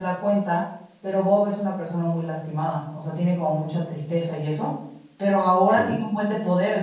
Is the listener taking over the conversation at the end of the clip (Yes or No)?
No